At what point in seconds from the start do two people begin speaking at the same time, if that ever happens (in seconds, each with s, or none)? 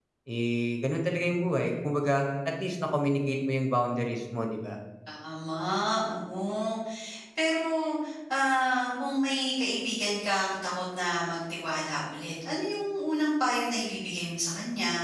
none